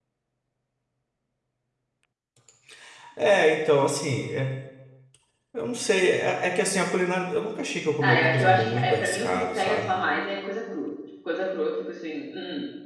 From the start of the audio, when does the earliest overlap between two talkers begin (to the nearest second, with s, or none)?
8 s